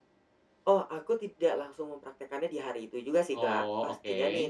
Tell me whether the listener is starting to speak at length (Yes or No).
No